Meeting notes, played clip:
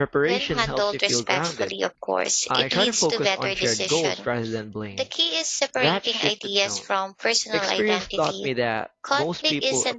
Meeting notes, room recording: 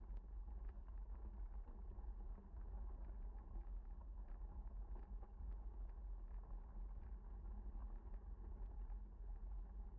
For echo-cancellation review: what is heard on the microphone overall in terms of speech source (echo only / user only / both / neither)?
neither